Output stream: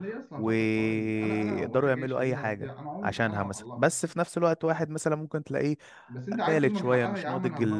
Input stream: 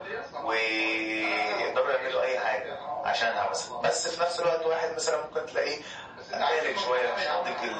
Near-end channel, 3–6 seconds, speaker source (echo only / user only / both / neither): echo only